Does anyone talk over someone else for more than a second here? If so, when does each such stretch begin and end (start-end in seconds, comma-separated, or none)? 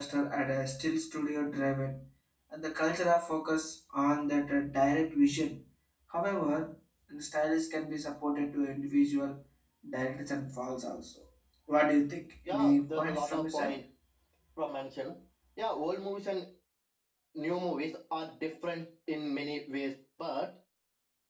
12.5-13.7